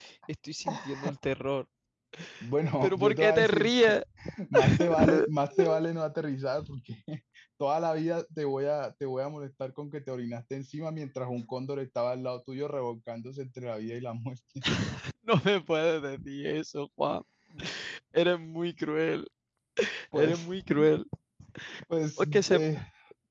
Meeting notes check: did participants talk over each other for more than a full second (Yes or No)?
Yes